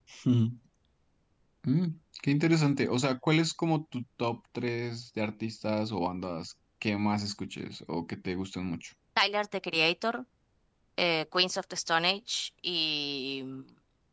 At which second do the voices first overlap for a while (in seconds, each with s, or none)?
none